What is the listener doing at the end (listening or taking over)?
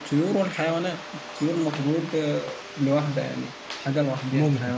taking over